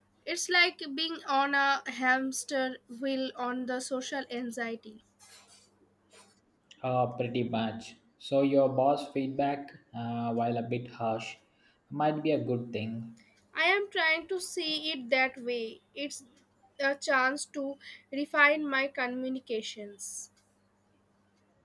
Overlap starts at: none

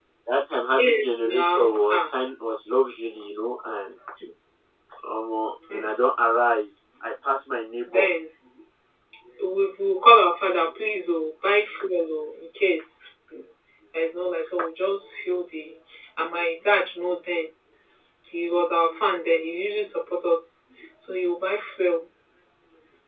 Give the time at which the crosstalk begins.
0.7 s

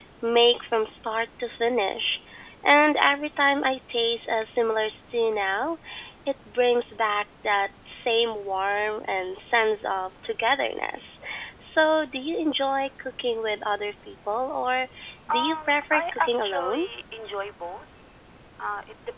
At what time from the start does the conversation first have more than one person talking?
15.3 s

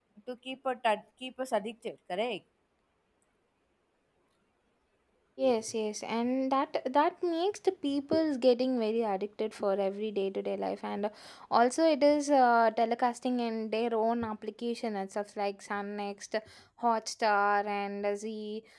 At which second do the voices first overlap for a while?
none

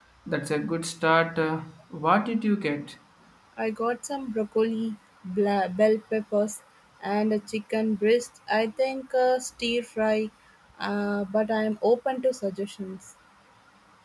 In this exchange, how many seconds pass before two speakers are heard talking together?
none

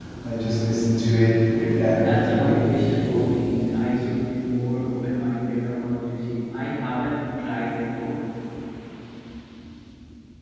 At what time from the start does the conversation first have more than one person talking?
1.6 s

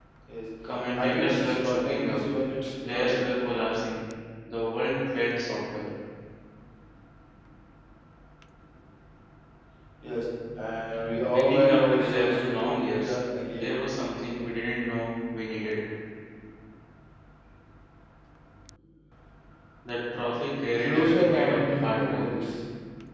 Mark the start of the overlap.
0.9 s

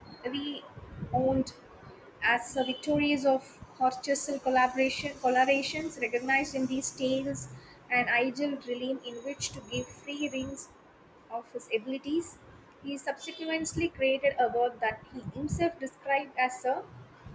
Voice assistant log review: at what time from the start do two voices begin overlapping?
none

